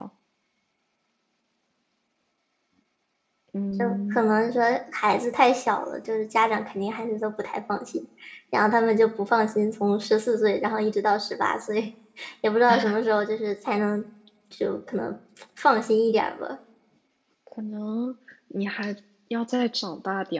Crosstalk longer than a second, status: none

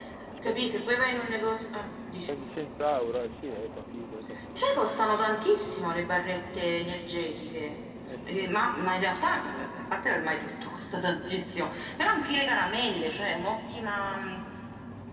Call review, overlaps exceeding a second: none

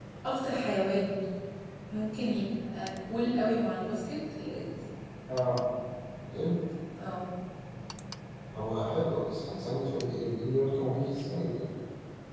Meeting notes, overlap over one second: none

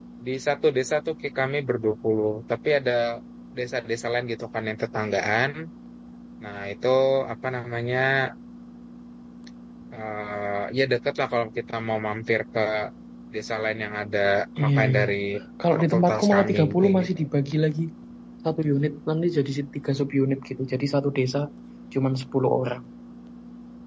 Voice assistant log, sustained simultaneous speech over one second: present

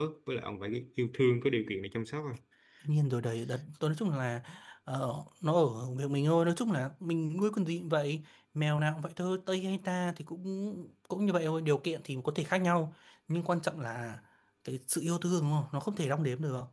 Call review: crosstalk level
none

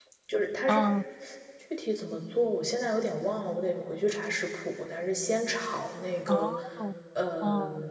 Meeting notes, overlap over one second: none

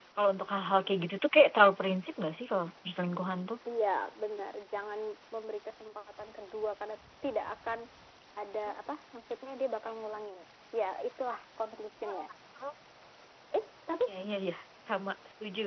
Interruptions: none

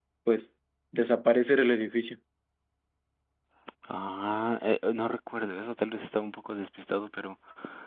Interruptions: none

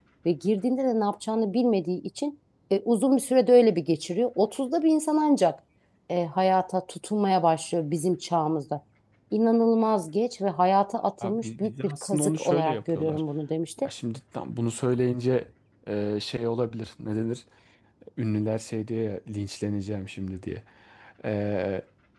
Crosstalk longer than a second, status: present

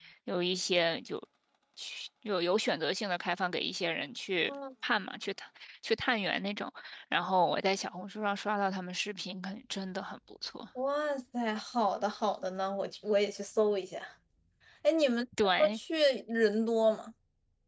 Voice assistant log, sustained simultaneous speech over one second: none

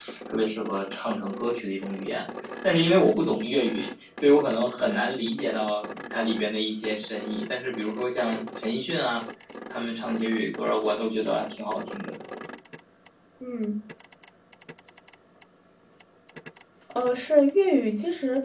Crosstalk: none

